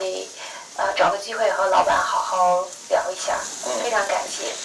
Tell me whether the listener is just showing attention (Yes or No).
No